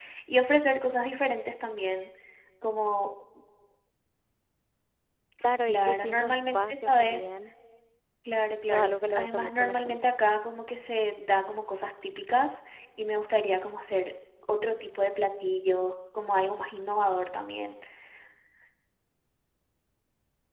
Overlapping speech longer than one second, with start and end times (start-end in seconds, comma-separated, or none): 5.7-7.3, 8.6-10.1